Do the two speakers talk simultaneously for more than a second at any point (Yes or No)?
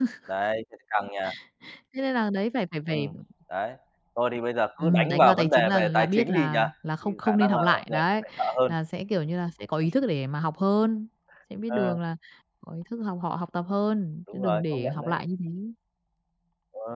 Yes